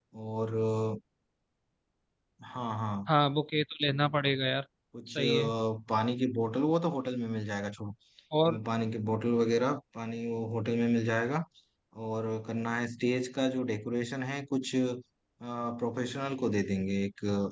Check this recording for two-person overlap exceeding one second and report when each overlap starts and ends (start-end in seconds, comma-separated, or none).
none